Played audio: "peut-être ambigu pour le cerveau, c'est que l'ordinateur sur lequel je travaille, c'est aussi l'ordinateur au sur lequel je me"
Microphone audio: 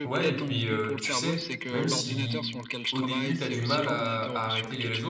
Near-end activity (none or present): present